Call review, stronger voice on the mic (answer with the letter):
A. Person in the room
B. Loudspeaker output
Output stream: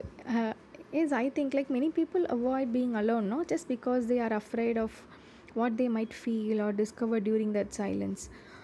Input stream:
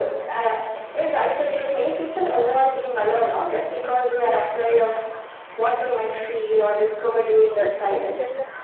B